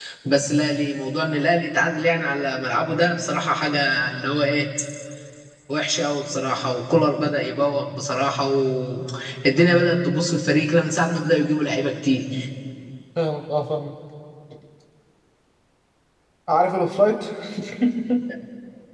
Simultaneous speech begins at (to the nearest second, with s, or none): none